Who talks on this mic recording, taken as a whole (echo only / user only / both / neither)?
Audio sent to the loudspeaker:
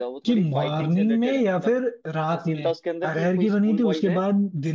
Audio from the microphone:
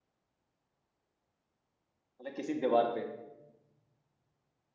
user only